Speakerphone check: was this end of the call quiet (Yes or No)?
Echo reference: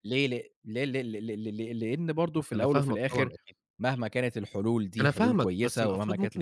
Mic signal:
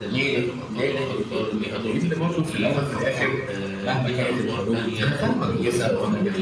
No